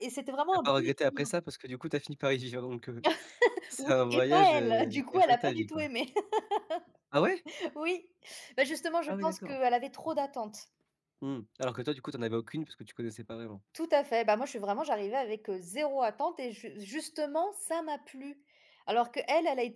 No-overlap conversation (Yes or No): No